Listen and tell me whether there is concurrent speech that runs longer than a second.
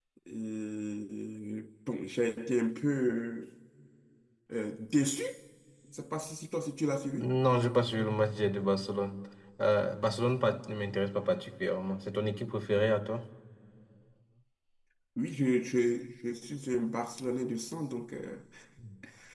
No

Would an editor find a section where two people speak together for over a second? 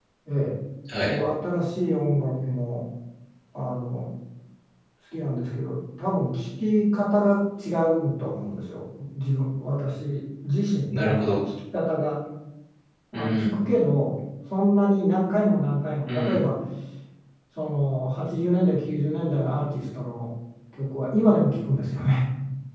No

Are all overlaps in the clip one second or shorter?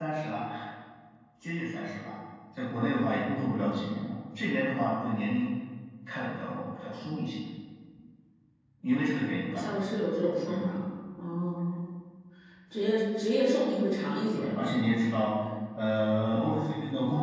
Yes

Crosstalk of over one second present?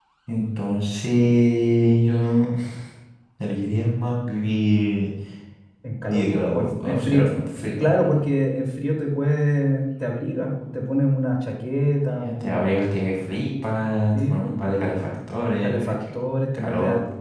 Yes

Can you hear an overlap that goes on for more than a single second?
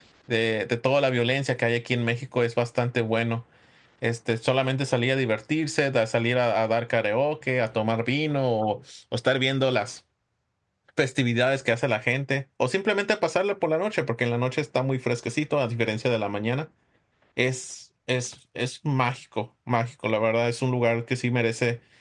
No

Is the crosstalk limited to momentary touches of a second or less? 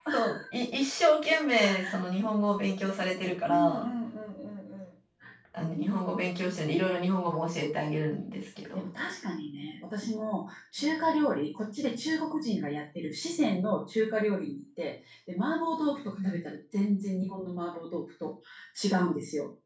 Yes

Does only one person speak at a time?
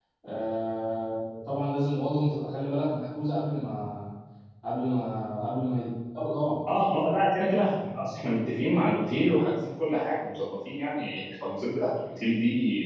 Yes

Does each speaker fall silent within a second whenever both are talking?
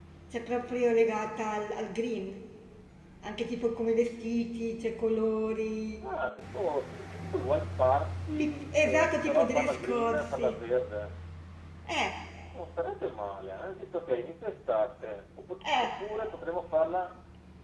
No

